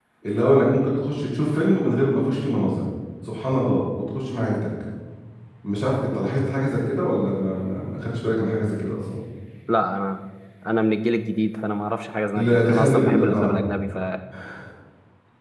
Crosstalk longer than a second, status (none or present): present